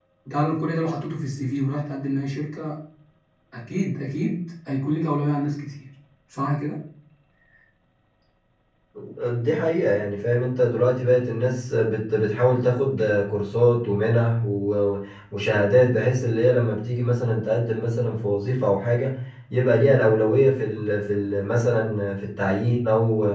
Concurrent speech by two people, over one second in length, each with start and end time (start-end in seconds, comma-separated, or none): none